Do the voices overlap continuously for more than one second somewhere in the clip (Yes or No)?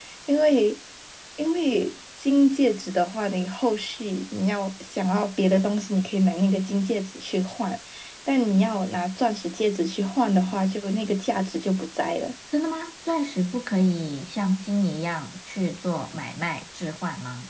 No